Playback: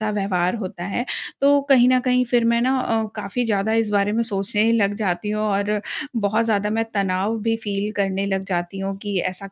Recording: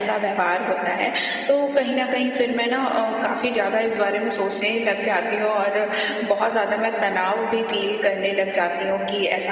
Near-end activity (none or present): none